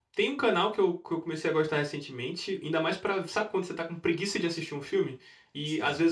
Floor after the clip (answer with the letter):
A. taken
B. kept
B